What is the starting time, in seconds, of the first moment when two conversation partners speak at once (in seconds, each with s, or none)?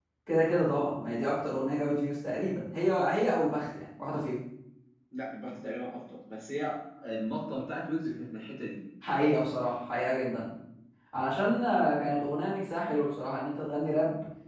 none